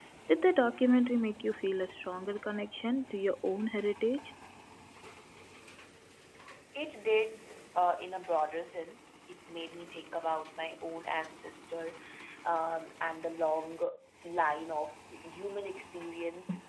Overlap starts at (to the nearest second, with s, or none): none